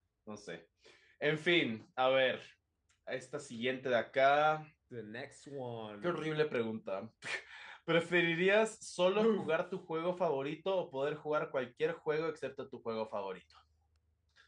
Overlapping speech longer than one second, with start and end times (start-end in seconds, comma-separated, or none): none